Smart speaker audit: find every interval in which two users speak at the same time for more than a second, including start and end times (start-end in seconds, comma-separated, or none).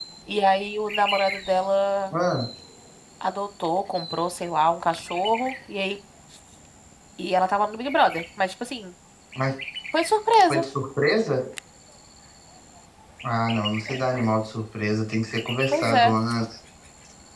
none